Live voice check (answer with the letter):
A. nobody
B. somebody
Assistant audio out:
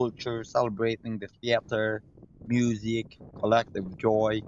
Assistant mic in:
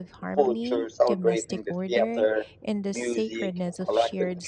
B